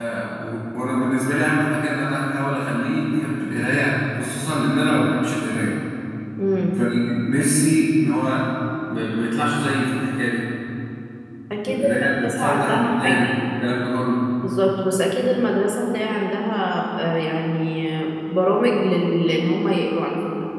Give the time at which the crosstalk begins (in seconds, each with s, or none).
11.7 s